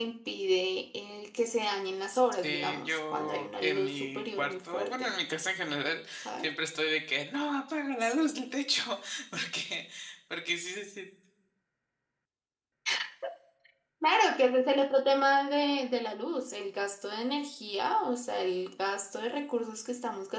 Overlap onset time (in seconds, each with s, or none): 2.4 s